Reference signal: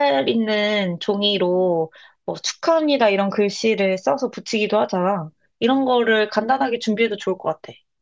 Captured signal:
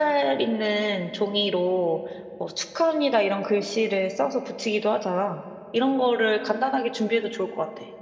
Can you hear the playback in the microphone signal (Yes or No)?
Yes